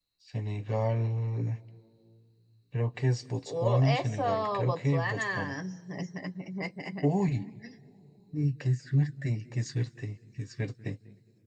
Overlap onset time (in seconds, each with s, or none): 3.5 s